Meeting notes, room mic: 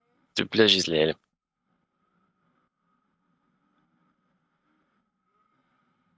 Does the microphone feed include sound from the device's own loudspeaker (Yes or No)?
No